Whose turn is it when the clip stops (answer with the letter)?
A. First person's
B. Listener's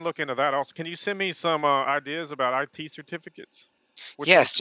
B